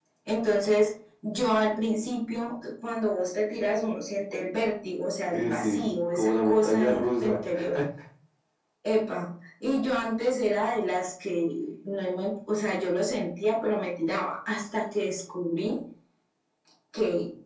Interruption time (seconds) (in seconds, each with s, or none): 5.3 s